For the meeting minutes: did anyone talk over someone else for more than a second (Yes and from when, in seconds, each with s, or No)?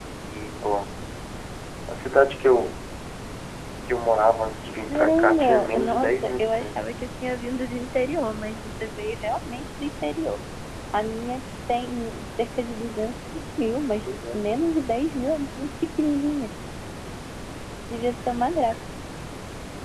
Yes, from 4.8 s